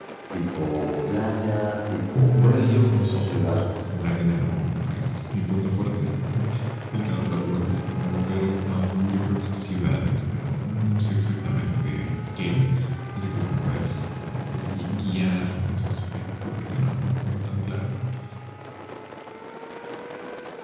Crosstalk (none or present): present